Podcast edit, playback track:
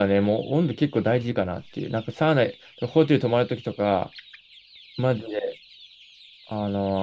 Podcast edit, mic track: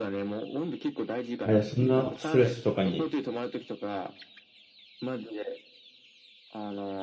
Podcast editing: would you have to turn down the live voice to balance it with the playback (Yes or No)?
Yes